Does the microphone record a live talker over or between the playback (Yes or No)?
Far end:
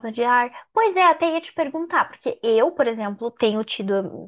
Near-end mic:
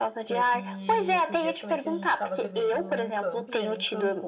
Yes